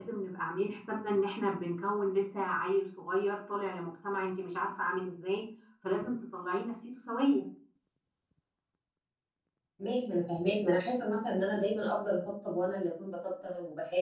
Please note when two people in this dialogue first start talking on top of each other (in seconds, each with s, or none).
none